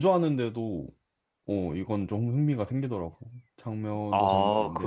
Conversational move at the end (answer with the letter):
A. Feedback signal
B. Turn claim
B